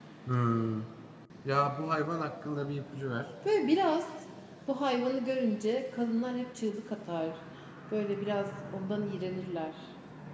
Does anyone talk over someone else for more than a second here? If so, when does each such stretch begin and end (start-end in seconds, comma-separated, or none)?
none